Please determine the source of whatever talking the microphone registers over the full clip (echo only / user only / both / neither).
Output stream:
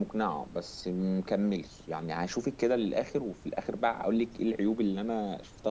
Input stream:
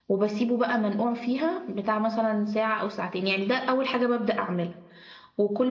user only